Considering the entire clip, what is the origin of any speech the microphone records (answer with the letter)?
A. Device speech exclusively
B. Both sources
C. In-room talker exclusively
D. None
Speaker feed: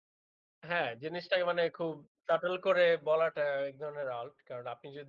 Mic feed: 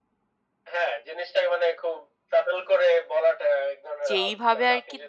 B